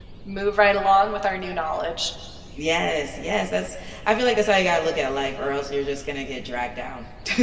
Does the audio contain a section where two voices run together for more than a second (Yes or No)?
No